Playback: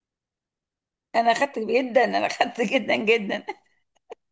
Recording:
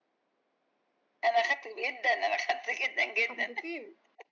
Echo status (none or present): present